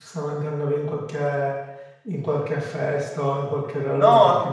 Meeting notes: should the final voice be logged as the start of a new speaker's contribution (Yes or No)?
Yes